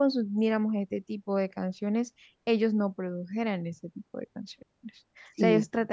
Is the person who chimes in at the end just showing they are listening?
Yes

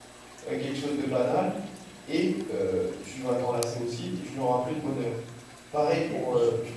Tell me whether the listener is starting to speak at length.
Yes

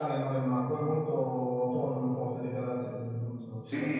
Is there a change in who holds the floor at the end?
Yes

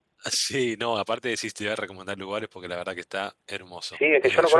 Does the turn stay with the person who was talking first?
No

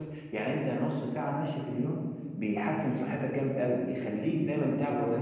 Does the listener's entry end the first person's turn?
No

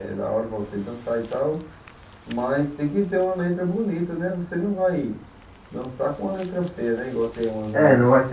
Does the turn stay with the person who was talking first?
No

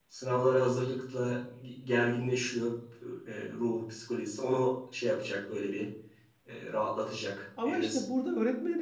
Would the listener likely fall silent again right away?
No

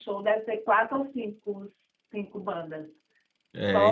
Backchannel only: No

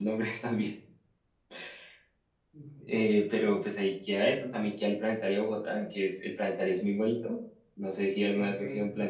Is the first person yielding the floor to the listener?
Yes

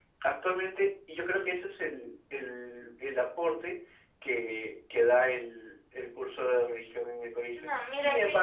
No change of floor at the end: No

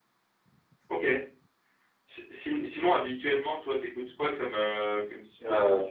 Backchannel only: No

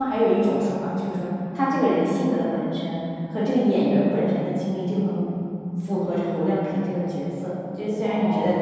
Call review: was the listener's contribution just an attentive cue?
No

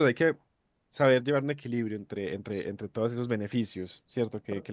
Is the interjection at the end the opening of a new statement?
Yes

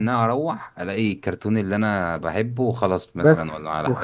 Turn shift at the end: Yes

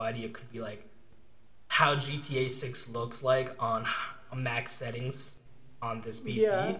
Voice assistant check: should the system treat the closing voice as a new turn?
No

